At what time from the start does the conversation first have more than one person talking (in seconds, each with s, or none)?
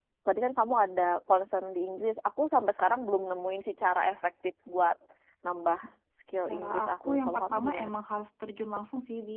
6.5 s